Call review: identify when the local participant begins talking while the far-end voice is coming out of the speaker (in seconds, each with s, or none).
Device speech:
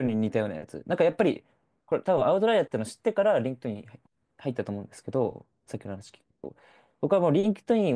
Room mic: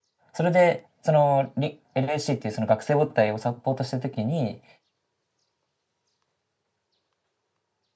0.3 s